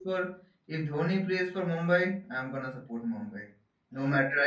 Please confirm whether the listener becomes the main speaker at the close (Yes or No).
Yes